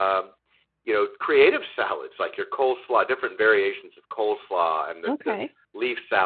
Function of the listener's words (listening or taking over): listening